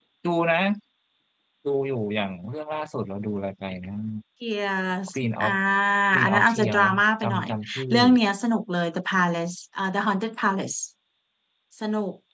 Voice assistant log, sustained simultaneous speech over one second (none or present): present